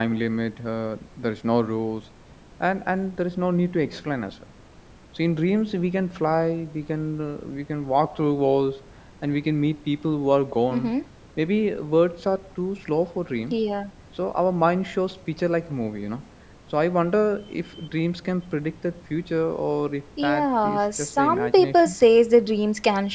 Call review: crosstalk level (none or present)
present